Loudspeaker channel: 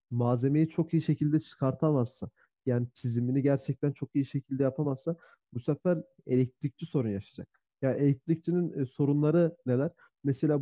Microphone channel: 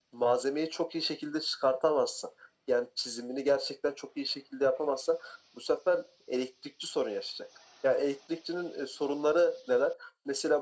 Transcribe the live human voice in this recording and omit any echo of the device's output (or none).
none